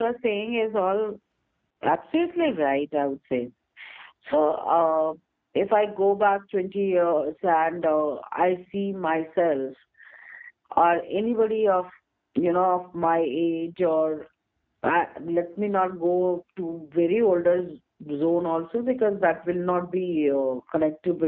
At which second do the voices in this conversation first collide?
none

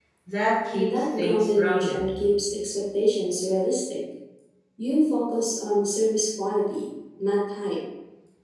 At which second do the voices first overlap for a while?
0.7 s

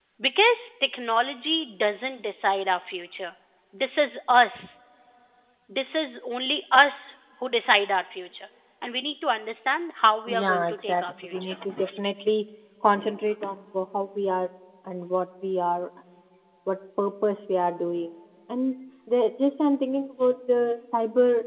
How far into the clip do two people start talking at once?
10.3 s

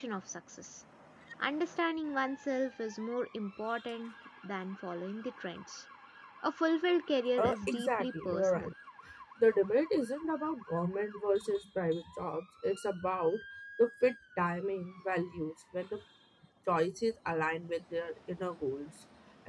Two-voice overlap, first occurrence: 7.4 s

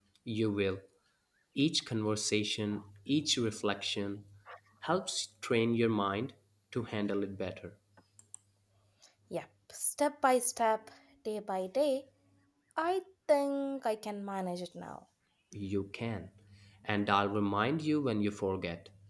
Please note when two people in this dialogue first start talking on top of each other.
none

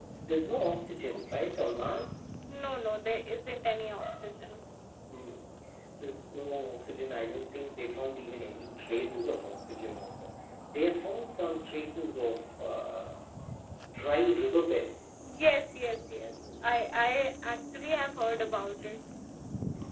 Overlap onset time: none

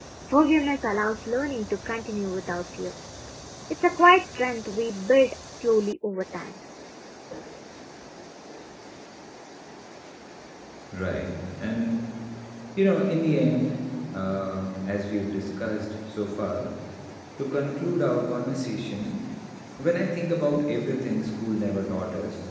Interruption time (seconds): none

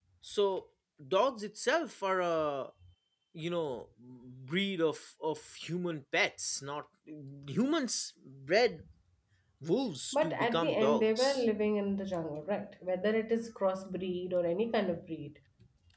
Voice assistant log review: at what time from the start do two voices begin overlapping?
10.1 s

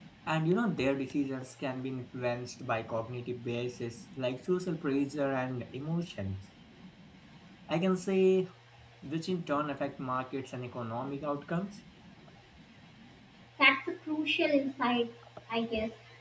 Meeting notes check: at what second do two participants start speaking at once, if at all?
none

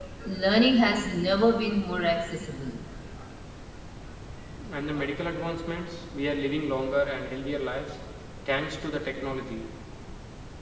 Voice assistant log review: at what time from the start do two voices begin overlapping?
none

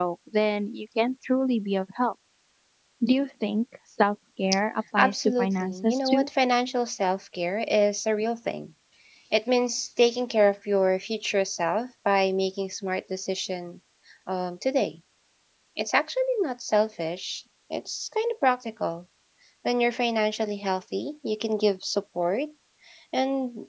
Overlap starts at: 5.0 s

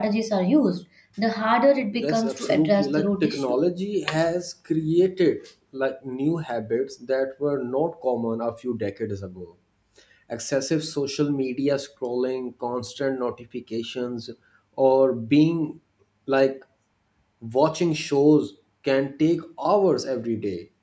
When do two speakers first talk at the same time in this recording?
1.9 s

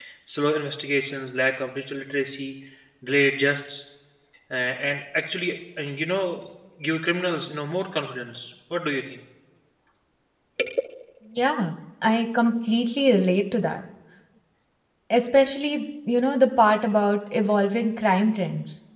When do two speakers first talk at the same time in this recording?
none

